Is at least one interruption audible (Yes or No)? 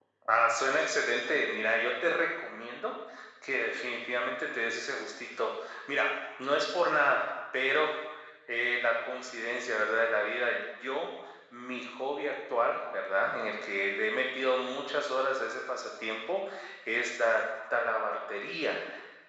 No